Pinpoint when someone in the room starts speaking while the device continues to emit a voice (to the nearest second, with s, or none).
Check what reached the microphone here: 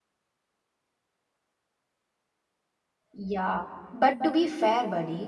3 s